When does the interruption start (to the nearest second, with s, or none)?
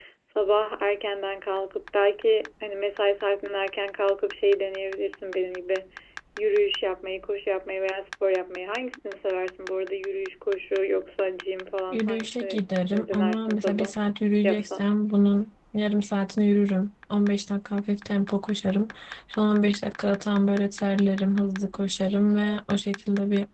12 s